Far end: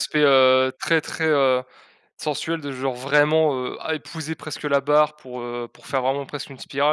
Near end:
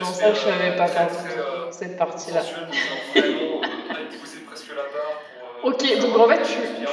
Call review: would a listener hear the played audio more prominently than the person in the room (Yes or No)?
No